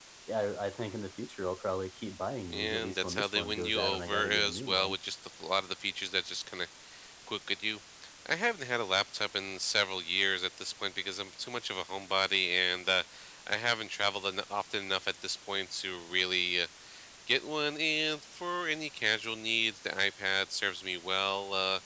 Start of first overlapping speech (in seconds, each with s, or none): 2.5 s